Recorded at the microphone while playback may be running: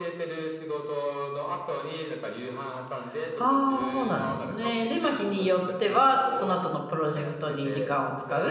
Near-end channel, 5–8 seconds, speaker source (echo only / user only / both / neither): both